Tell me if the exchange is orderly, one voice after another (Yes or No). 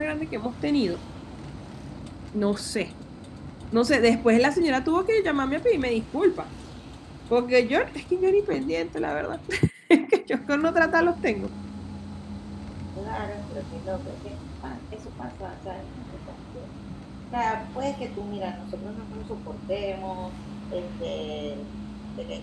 Yes